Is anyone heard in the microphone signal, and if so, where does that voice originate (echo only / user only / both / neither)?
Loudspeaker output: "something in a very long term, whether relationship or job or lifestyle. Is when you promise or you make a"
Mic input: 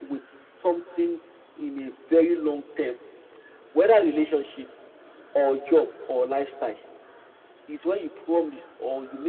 echo only